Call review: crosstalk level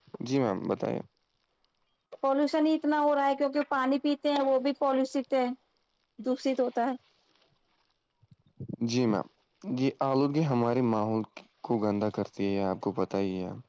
none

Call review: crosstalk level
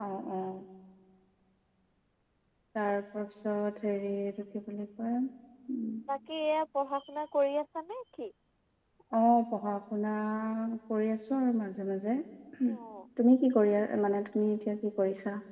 none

